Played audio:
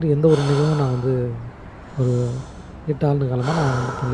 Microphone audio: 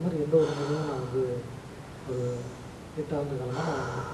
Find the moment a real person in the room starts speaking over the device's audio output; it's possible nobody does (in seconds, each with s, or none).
none